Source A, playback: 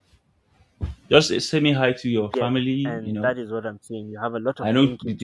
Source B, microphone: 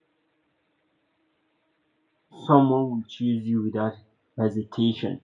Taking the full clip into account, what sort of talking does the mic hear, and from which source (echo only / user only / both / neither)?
user only